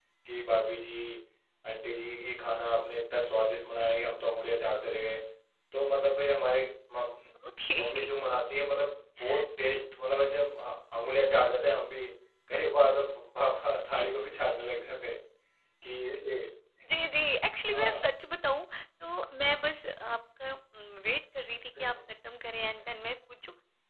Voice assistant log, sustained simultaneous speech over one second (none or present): none